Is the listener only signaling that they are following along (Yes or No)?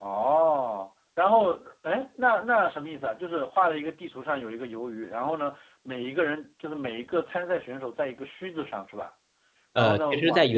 No